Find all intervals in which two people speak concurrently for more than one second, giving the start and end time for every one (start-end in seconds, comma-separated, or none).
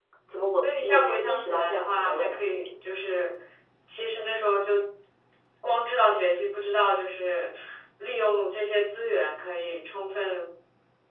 0.6-2.6